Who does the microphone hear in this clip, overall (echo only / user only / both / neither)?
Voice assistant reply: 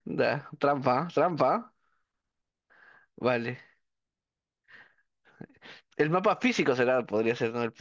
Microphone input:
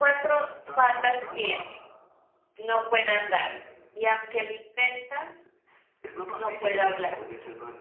both